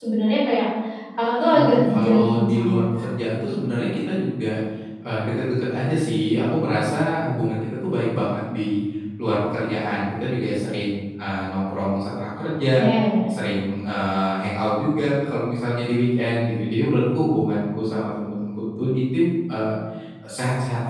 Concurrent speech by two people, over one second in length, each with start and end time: 1.5-3.0

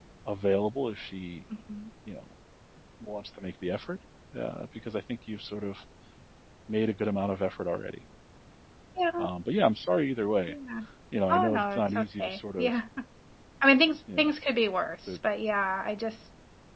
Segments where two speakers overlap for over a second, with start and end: 11.3-12.7

